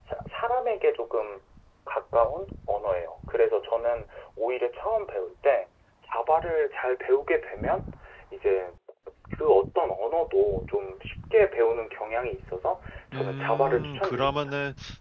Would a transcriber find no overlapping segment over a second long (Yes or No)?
No